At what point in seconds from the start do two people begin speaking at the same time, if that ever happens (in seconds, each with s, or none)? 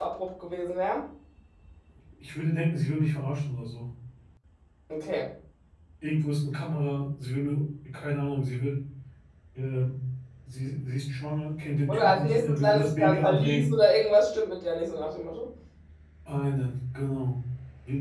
11.9 s